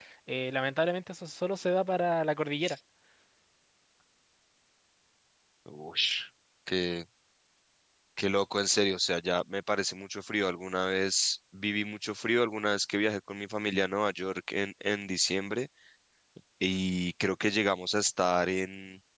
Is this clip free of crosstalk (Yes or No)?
Yes